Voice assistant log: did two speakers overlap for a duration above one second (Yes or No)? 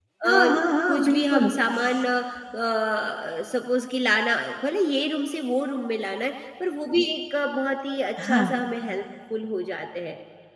Yes